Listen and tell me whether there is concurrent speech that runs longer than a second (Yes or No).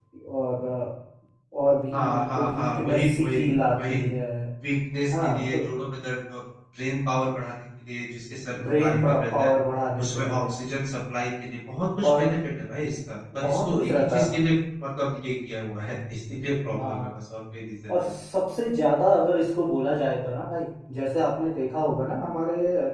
Yes